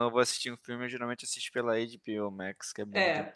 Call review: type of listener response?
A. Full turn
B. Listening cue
A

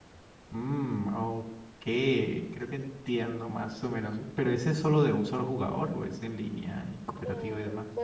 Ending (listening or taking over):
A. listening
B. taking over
B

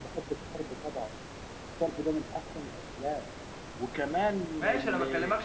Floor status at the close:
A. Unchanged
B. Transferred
B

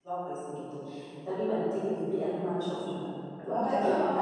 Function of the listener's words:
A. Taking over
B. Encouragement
B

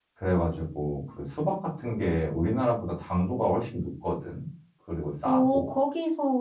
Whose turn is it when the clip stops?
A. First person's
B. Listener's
B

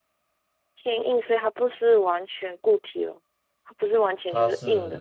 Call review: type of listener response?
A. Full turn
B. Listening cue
A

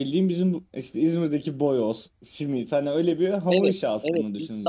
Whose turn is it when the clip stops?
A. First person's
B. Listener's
B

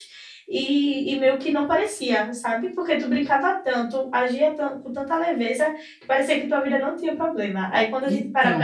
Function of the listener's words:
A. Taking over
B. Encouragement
B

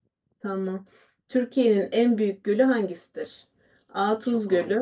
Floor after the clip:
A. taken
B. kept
B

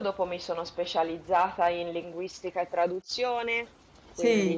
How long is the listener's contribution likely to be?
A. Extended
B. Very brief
B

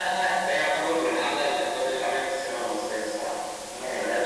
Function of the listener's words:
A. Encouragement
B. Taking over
B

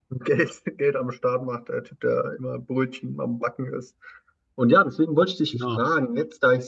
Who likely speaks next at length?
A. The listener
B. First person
B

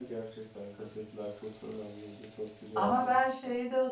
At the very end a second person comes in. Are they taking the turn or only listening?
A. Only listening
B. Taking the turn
B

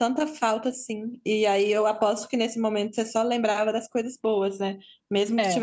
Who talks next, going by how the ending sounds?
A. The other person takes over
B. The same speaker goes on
B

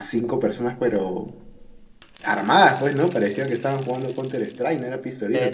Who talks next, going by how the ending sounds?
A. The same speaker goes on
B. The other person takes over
B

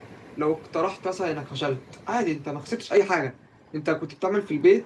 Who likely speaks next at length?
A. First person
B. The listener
A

